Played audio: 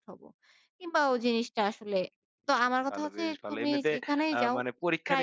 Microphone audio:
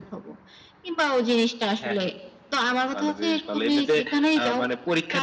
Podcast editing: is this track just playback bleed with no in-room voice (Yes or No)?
No